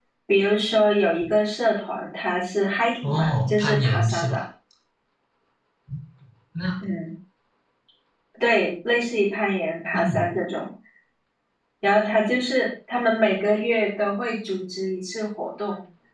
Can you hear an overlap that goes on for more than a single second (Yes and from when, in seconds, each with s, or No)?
Yes, from 3.0 s